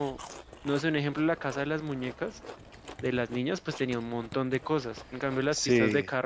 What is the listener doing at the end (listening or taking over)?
listening